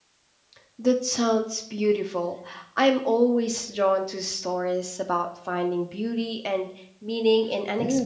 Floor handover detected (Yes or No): Yes